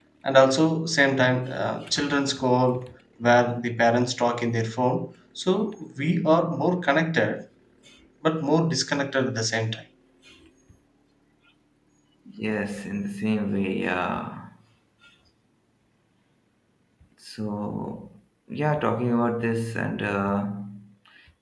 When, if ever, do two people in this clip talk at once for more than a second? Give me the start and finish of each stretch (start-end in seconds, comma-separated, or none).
none